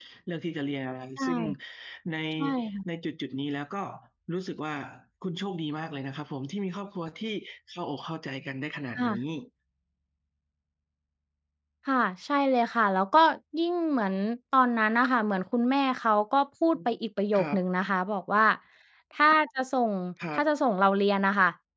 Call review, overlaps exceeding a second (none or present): none